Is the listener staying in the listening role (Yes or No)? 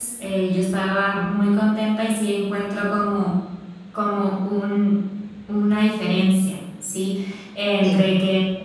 Yes